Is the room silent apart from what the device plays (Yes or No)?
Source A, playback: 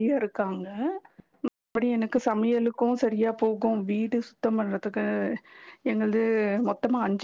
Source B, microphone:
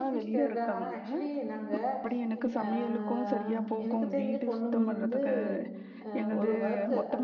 No